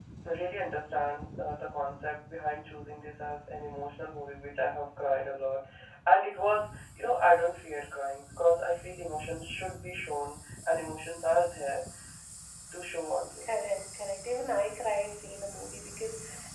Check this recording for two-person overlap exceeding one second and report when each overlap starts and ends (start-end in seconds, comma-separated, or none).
none